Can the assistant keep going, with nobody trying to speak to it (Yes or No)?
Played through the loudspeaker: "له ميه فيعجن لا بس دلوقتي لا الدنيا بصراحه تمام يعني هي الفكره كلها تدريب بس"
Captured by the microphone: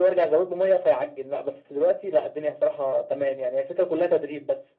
Yes